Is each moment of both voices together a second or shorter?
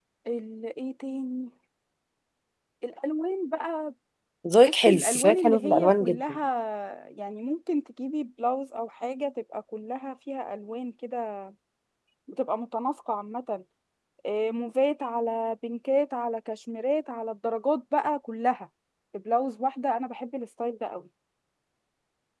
No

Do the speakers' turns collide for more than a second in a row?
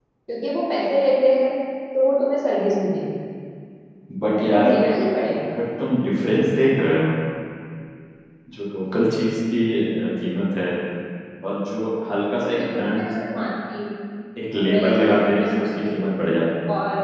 Yes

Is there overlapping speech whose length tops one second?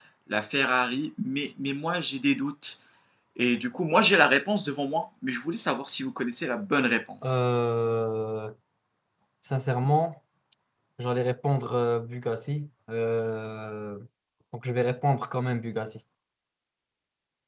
No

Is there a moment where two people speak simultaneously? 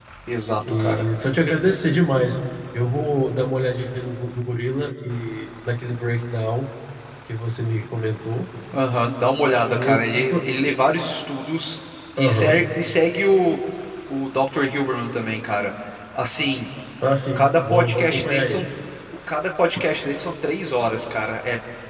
Yes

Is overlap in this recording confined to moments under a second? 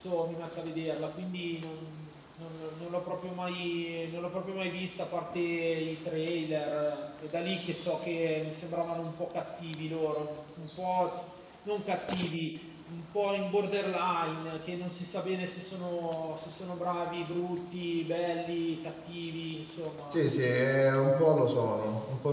Yes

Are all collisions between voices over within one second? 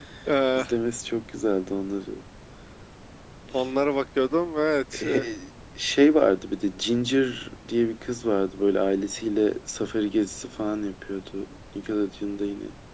Yes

